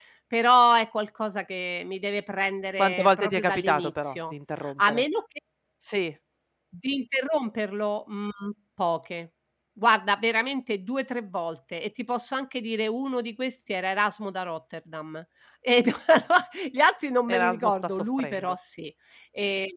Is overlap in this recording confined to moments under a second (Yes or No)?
No